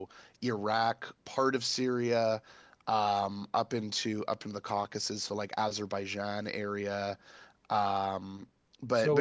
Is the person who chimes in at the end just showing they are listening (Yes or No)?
No